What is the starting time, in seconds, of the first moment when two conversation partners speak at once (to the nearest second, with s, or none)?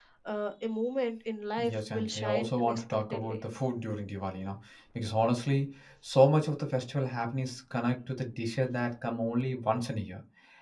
2 s